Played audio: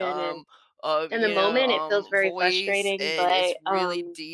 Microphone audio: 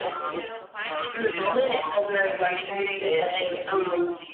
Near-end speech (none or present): present